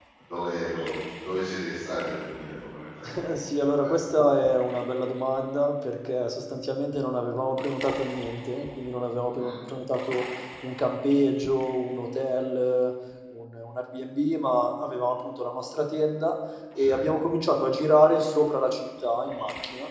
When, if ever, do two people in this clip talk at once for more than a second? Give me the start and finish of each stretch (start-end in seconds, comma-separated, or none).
none